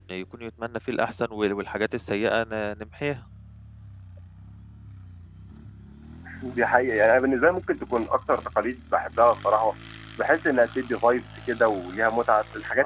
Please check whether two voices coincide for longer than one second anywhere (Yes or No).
No